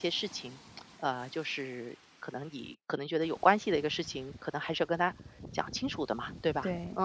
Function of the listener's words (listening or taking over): taking over